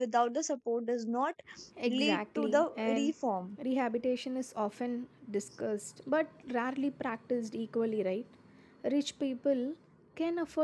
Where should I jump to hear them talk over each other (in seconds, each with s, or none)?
1.9 s